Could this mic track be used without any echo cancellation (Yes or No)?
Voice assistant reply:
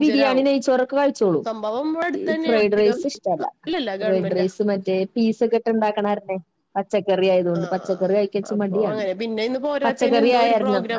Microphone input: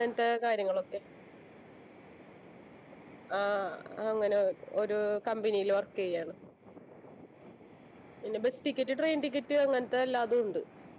Yes